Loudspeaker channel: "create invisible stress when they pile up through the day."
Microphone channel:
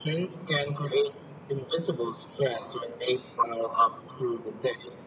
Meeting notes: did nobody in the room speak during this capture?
Yes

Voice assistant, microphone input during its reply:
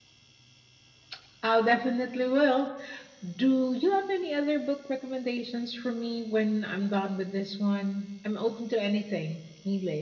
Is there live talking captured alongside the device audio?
No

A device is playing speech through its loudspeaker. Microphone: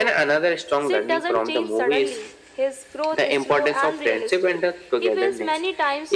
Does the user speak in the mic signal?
No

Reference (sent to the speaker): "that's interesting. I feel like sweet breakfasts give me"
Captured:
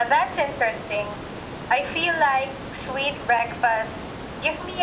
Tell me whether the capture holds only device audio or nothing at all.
Yes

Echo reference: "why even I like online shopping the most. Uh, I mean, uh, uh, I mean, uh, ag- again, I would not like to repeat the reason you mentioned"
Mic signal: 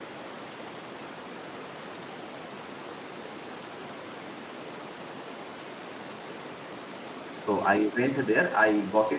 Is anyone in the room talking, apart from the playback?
Yes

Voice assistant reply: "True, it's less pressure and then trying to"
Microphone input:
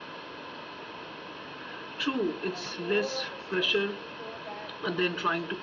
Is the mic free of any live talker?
No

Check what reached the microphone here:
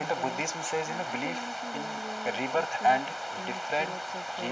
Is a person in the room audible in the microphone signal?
Yes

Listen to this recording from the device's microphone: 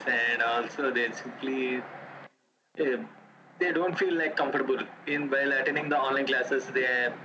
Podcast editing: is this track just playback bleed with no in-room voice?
Yes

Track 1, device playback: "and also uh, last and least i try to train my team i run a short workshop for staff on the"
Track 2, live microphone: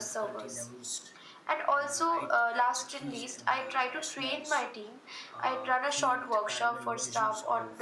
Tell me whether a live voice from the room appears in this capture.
Yes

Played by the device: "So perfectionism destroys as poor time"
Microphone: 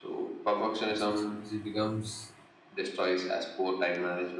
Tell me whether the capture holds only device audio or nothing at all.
No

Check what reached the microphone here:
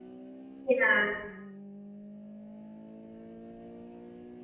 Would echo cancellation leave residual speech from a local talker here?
Yes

